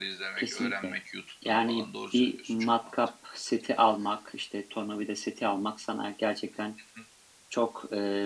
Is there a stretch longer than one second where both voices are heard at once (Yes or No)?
Yes